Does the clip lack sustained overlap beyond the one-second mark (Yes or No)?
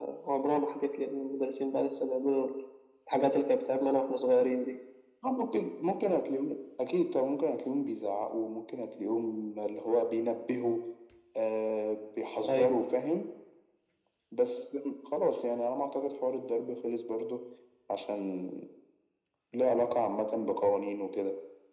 Yes